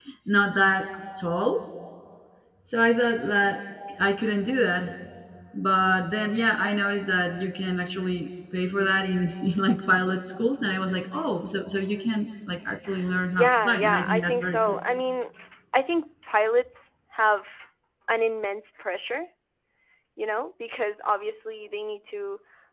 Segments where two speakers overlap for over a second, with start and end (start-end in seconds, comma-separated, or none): 13.3-14.8